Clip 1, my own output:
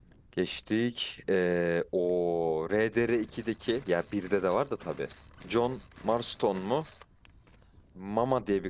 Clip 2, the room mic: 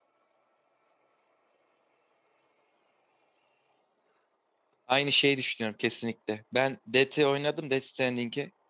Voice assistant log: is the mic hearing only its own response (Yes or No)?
No